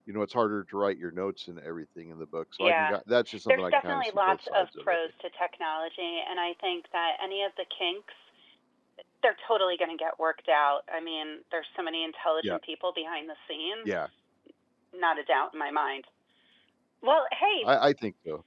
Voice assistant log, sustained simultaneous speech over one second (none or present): present